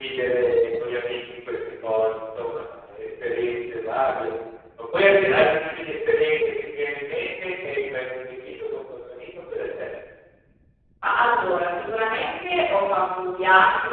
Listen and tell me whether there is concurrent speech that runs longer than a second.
No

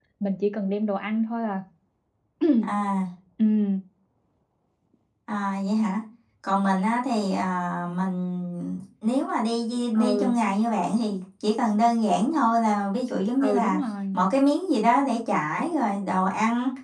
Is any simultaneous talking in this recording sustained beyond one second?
No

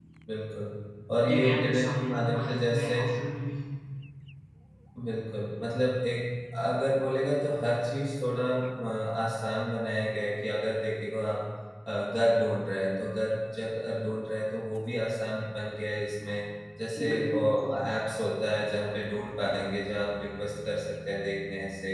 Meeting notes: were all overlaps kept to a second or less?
No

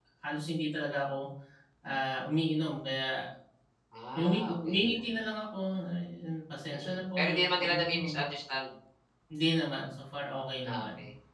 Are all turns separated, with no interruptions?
No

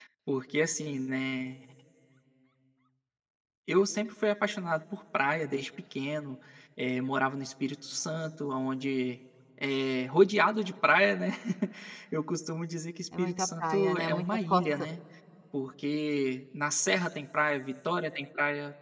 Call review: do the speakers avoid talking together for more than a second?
No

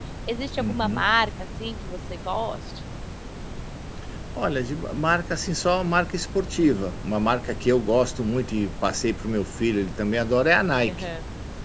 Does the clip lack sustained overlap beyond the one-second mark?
Yes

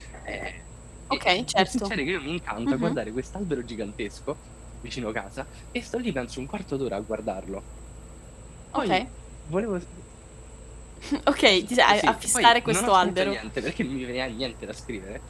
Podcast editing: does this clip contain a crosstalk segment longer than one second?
Yes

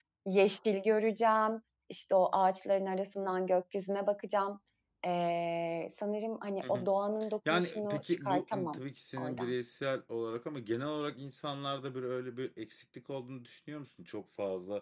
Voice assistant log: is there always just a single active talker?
No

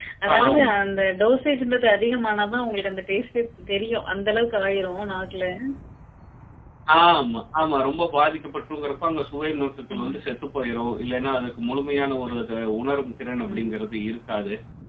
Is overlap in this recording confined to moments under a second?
Yes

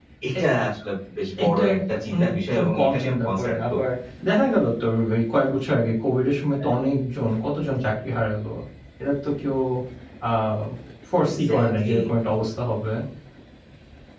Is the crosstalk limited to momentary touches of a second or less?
No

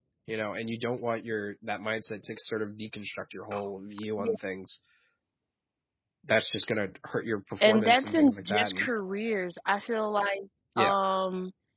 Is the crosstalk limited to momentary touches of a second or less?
No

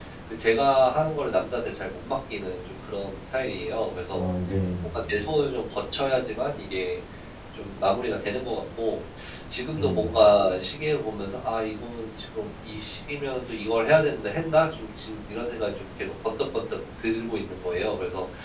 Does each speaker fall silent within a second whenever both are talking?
Yes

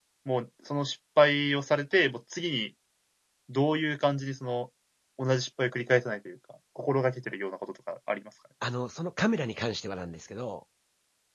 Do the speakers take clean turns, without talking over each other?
Yes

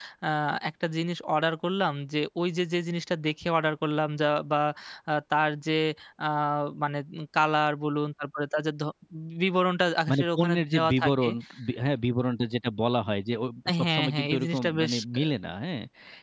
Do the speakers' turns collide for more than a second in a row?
Yes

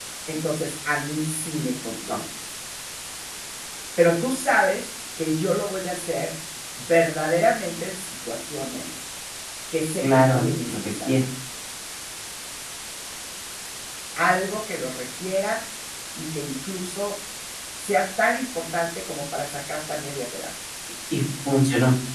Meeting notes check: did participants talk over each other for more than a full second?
Yes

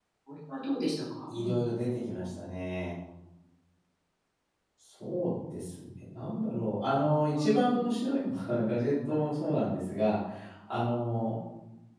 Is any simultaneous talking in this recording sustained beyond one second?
No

